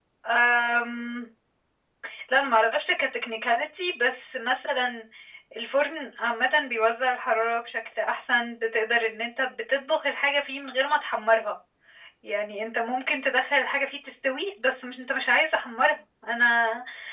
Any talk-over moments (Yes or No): No